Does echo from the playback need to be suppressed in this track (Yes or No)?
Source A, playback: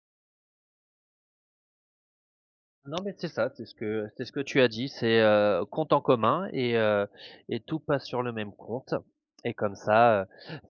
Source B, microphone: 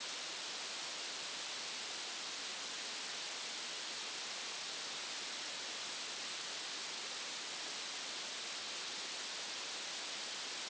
No